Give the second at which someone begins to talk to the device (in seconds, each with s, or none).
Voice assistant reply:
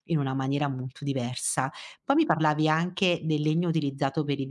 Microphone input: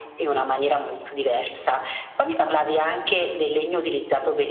none